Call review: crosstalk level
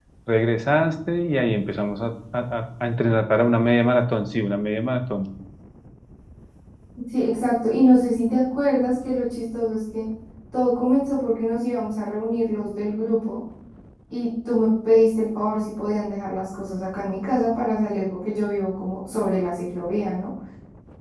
none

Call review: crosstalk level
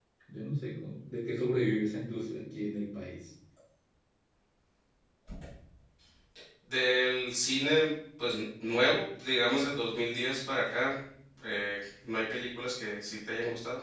none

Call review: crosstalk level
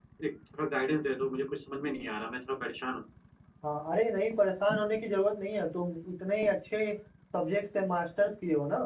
none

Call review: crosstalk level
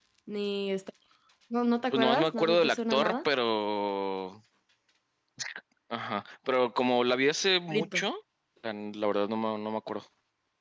present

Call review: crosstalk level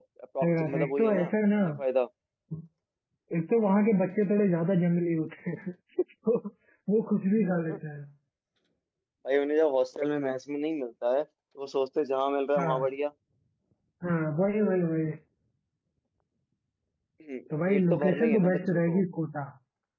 present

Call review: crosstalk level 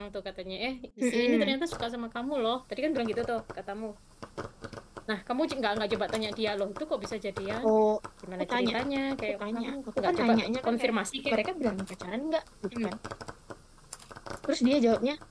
present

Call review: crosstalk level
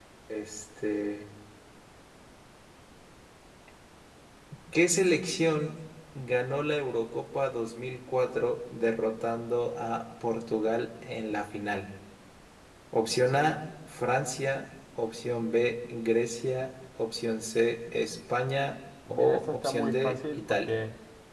present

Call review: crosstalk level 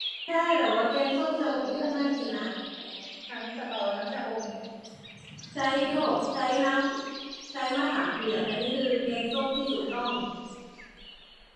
present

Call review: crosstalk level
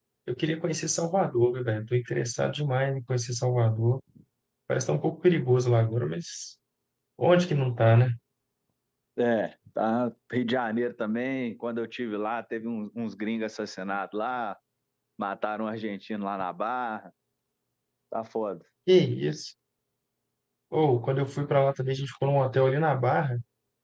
none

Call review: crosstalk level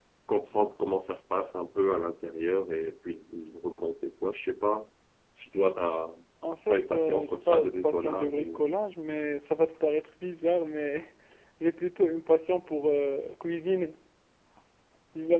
present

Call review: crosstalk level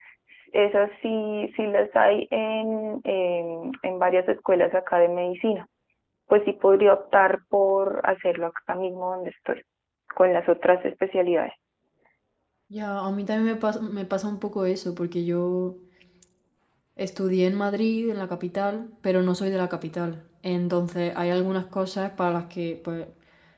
none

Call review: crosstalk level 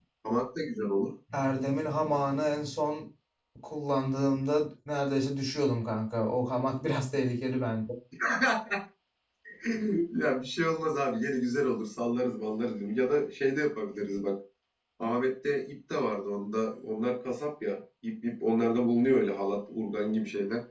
none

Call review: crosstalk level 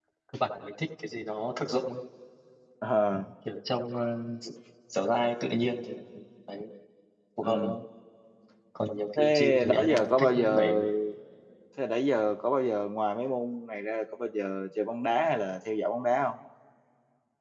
present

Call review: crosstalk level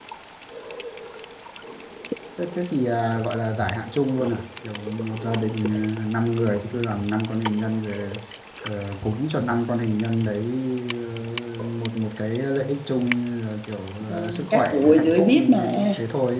present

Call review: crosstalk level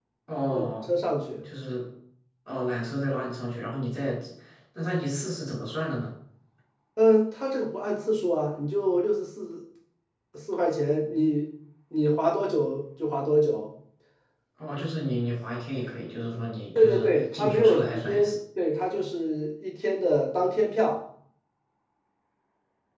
present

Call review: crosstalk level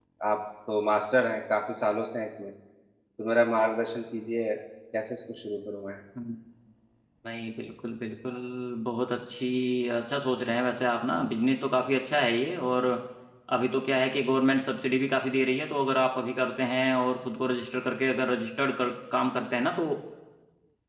none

